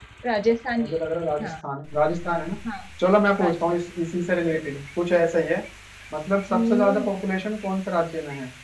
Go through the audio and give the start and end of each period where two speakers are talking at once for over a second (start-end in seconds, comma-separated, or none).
none